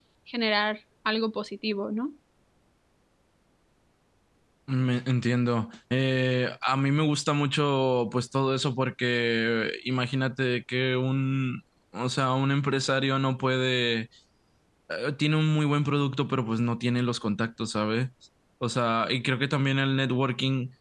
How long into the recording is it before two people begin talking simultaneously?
none

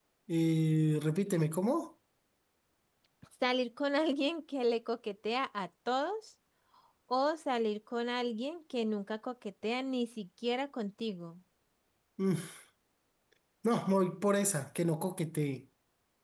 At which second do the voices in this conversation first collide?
none

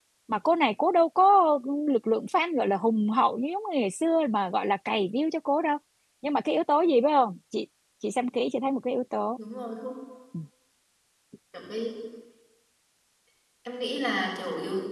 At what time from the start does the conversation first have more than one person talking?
none

